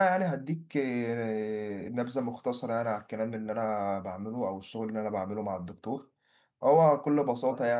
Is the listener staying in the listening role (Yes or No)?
Yes